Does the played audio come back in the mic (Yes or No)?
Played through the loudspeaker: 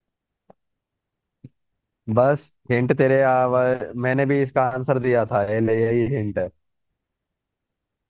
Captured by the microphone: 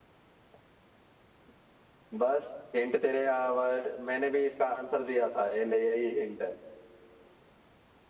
Yes